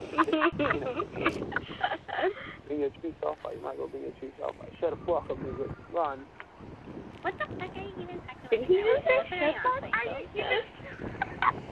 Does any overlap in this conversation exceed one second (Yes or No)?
Yes